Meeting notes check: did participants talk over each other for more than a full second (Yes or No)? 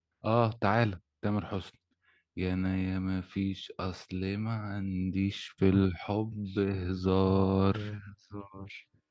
Yes